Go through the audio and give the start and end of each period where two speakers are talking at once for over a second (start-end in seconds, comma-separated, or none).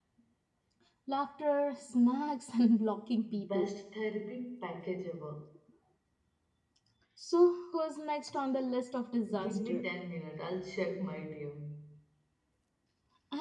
none